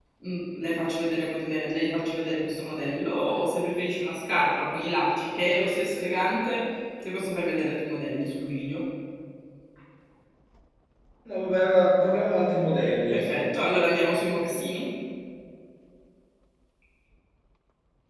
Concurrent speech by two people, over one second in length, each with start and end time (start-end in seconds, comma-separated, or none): none